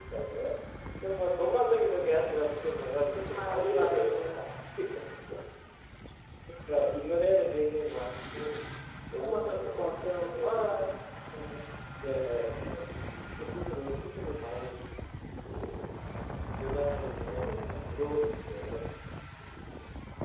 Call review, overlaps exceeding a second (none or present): present